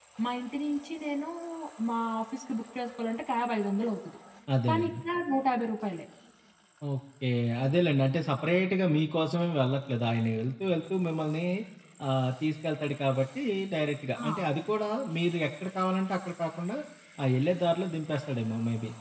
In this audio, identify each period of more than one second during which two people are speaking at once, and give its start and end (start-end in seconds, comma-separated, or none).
none